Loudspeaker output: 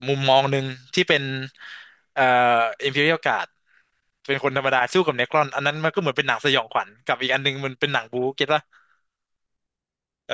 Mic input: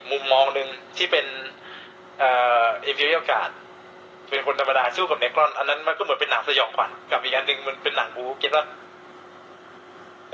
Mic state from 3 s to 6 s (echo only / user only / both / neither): echo only